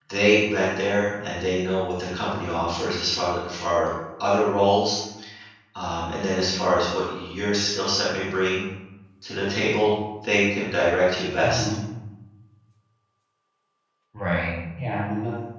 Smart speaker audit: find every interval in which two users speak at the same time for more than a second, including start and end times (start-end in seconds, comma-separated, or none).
none